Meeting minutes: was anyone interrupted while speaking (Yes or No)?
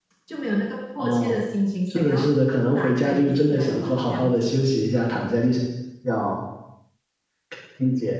Yes